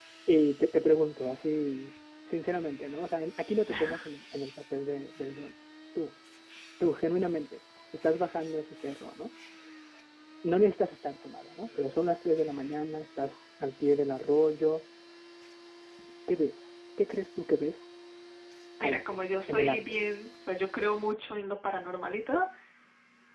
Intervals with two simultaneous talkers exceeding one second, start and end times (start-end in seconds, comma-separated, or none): none